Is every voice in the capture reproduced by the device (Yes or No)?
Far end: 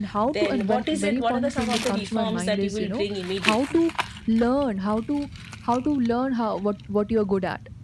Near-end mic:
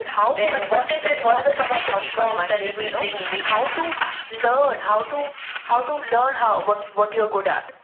Yes